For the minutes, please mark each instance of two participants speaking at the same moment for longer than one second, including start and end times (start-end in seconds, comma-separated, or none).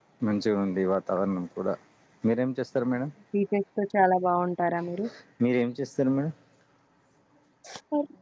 none